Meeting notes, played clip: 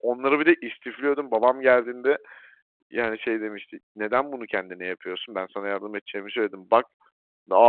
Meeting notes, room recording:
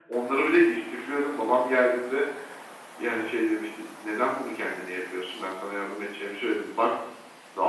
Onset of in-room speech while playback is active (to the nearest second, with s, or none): none